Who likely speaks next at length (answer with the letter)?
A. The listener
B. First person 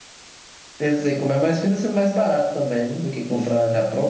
A